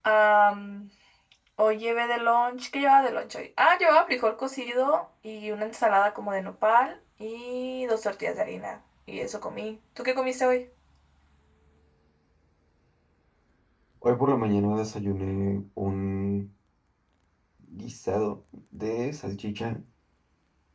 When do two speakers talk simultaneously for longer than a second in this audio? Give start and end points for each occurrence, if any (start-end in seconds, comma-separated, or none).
none